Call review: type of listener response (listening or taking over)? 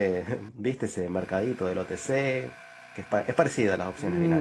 taking over